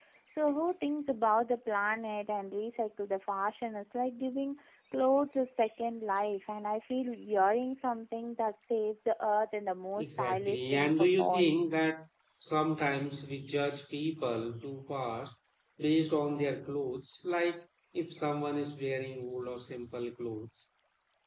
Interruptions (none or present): present